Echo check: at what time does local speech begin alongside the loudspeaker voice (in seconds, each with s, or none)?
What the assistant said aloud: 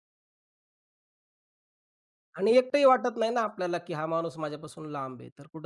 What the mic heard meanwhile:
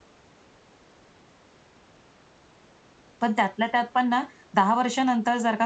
3.2 s